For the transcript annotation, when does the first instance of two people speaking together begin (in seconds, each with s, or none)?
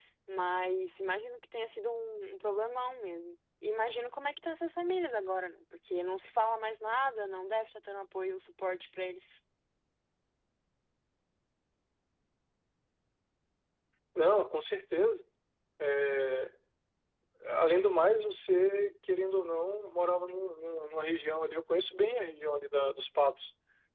none